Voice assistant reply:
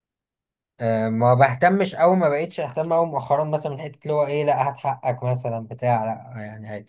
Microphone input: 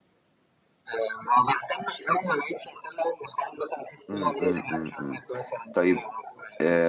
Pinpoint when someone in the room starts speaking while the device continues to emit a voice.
4.1 s

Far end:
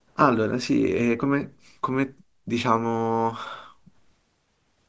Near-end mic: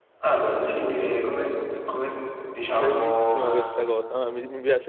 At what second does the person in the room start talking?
2.7 s

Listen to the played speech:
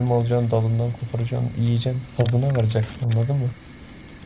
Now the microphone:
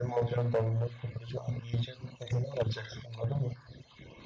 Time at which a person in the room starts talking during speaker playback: none

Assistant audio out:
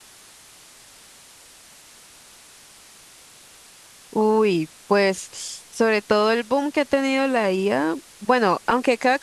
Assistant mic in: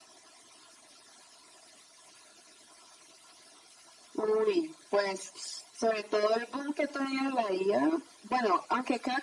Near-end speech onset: none

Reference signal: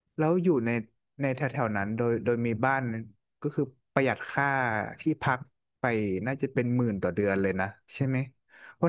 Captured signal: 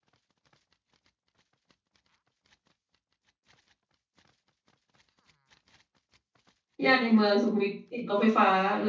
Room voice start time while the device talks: 6.8 s

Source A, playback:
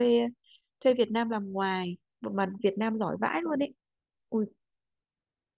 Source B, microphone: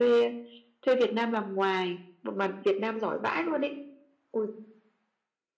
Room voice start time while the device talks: none

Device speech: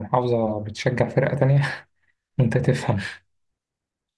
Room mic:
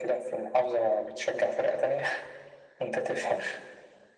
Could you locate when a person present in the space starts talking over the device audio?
none

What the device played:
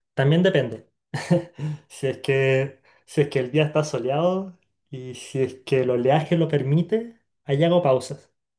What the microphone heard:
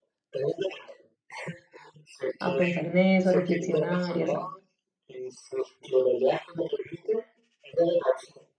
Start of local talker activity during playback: 2.4 s

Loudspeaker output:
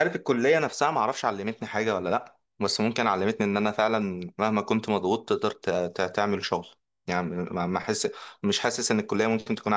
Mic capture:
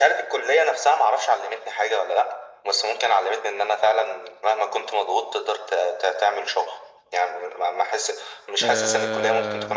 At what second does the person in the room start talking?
8.6 s

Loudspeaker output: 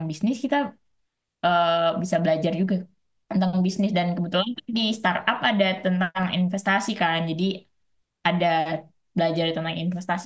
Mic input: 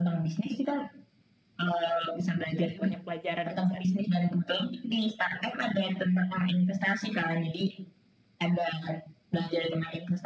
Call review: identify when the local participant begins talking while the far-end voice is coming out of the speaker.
2.6 s

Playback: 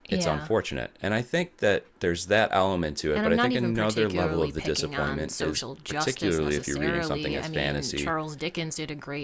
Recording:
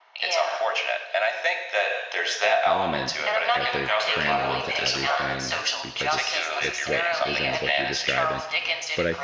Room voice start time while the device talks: 2.6 s

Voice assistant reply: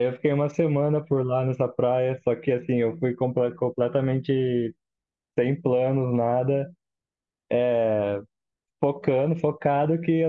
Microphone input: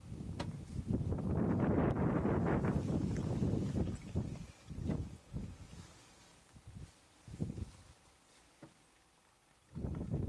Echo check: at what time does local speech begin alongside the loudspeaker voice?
none

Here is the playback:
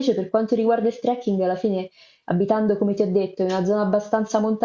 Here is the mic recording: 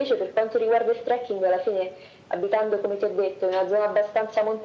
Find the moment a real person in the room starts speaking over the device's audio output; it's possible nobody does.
none

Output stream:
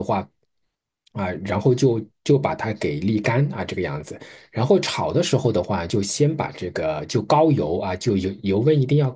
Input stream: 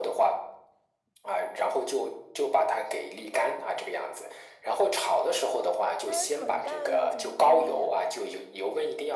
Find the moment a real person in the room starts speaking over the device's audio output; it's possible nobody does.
6.1 s

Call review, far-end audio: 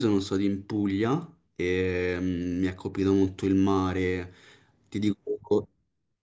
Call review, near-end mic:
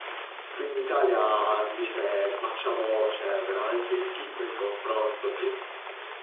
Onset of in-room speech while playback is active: 0.5 s

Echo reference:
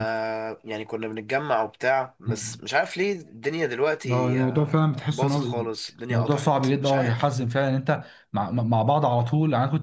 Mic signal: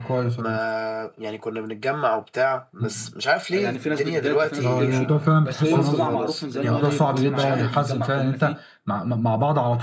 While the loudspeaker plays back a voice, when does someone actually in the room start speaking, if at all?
3.6 s

